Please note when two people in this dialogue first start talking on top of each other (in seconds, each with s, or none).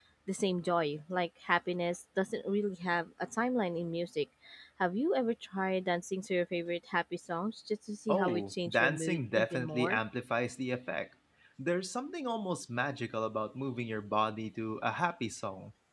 8.1 s